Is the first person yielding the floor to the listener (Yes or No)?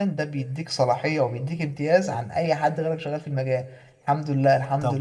No